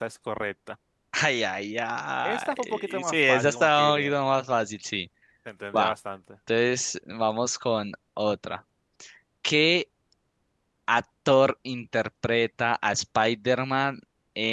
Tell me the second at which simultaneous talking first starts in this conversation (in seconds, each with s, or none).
2.2 s